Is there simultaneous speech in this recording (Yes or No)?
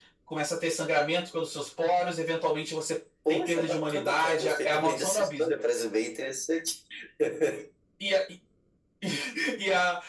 Yes